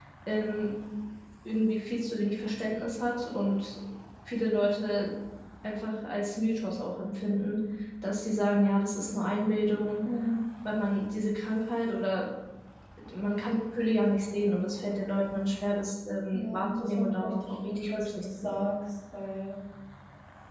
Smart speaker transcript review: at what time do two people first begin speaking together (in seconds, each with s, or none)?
16.3 s